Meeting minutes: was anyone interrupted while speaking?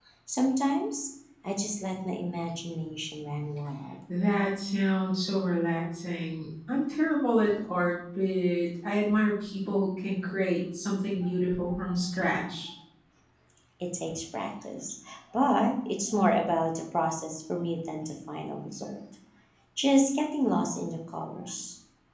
No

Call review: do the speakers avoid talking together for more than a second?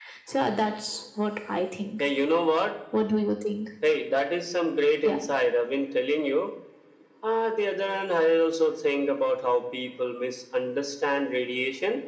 Yes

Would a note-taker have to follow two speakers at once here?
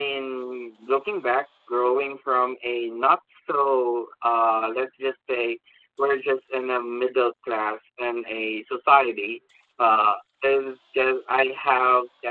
No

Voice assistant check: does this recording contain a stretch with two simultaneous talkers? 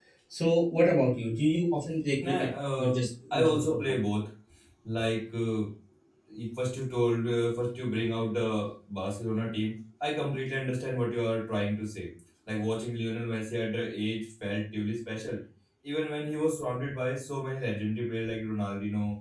Yes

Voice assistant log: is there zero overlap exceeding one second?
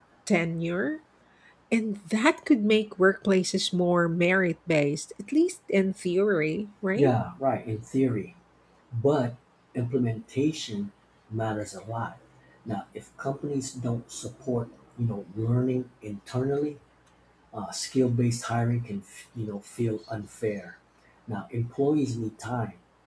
Yes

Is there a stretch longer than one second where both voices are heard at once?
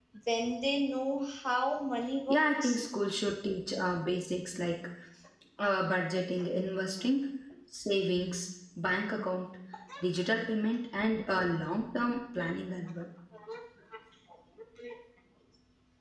No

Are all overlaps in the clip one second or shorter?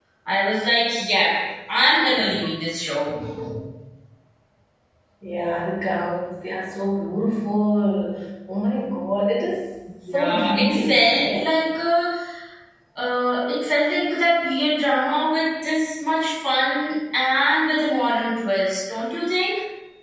No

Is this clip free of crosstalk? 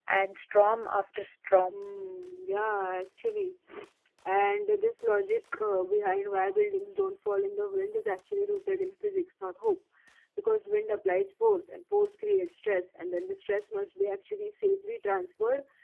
Yes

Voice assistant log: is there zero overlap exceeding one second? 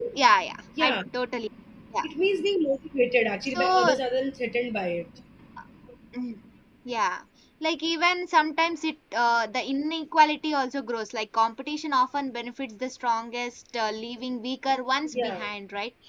Yes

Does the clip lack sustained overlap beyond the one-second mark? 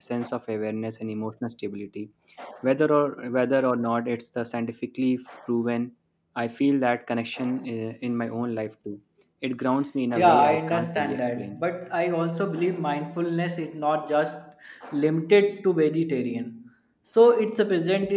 No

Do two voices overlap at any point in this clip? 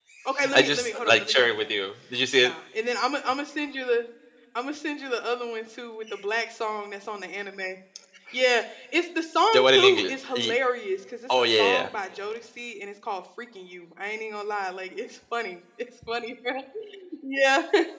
Yes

